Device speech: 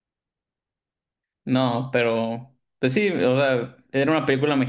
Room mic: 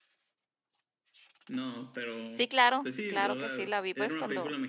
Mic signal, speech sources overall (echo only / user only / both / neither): both